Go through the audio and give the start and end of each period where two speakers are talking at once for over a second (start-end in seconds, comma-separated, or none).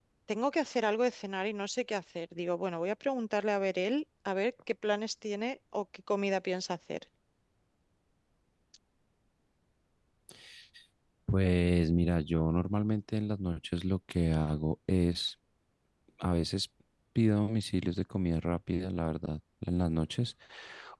none